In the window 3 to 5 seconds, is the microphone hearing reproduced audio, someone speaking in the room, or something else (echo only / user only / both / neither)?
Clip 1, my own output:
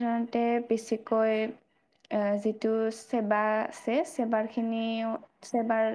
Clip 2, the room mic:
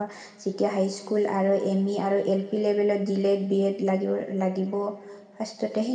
user only